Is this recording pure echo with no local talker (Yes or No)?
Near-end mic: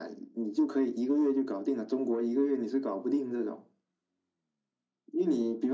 Yes